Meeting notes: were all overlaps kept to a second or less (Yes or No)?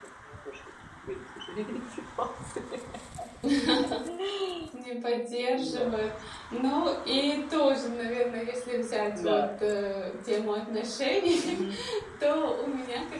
Yes